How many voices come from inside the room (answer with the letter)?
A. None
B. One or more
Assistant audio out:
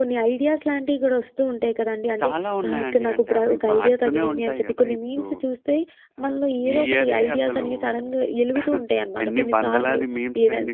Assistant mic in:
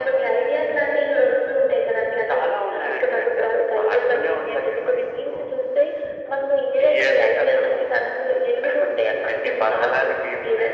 A